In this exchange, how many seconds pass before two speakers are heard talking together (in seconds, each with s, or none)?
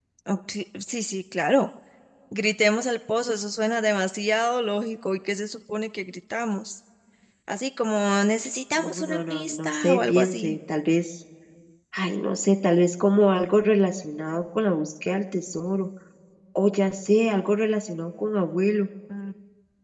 8.8 s